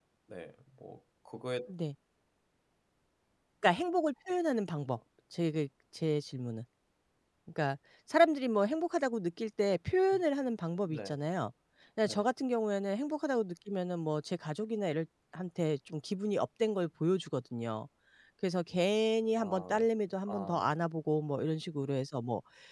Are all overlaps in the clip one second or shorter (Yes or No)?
Yes